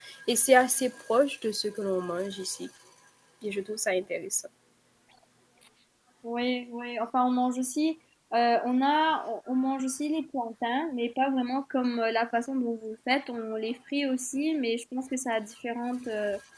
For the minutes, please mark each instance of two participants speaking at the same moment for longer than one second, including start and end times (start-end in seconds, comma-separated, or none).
none